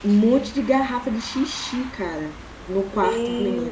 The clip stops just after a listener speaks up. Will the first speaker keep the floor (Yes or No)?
No